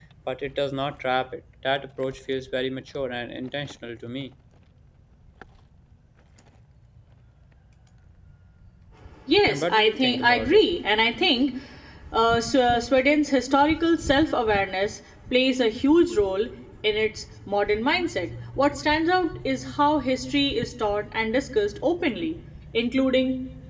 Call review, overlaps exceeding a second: present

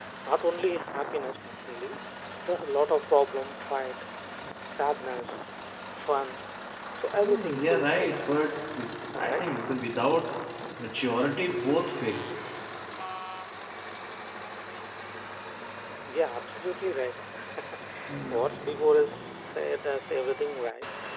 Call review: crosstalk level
present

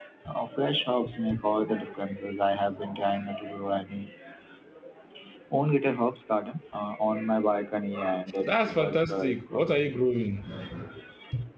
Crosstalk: present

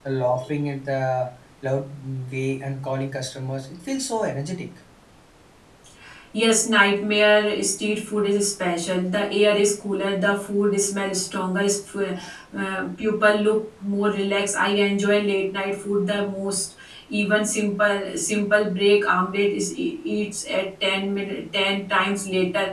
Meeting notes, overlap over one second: none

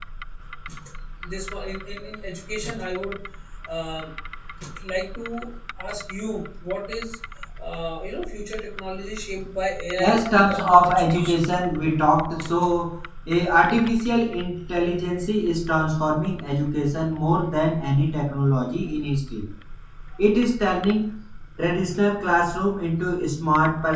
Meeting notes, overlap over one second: present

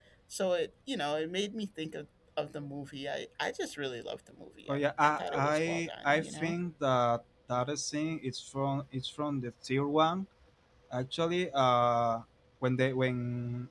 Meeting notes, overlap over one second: present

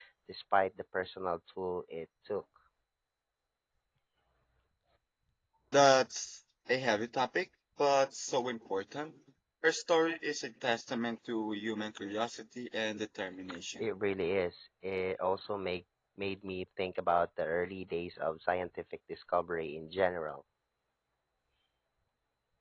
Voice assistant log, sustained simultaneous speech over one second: none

